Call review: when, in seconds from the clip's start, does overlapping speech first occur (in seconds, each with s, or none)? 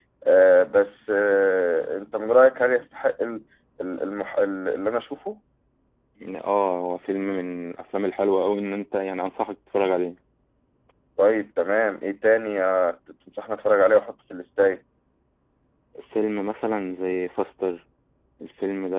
none